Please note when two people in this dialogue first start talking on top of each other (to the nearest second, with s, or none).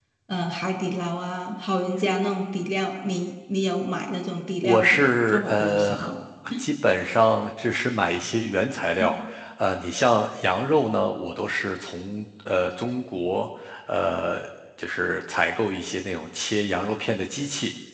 5 s